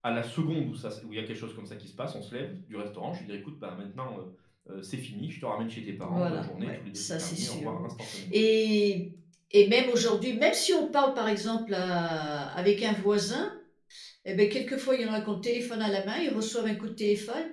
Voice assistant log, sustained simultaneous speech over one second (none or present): present